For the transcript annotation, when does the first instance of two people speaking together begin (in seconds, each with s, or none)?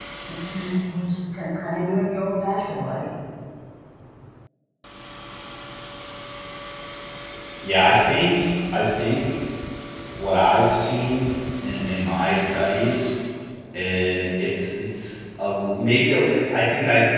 none